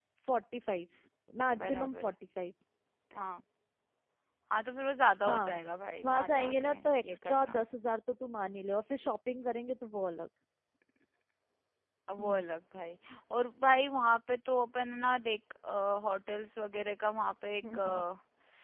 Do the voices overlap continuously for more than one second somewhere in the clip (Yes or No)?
Yes